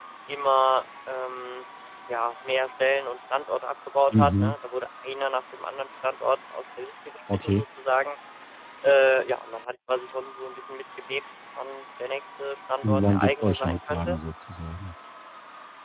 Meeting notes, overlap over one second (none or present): present